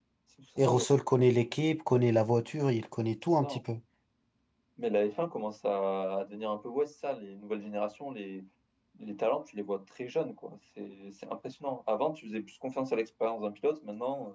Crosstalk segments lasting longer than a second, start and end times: none

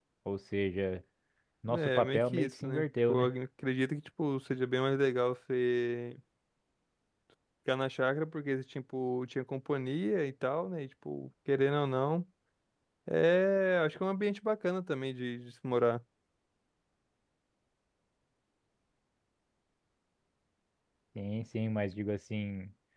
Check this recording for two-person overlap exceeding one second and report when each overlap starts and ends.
1.7-3.3

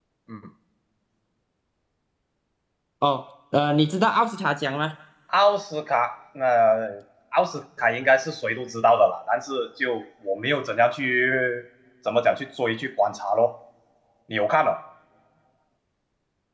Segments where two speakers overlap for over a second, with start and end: none

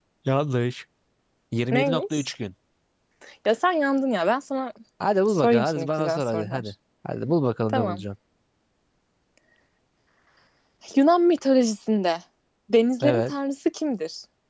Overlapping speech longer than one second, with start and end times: 5.3-6.7

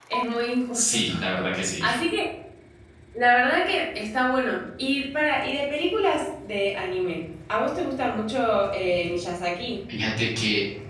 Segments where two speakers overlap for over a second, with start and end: none

